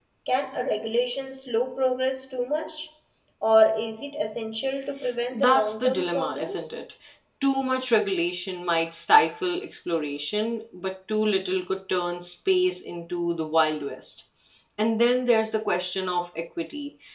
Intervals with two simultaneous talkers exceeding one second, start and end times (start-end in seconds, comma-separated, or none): 5.3-6.8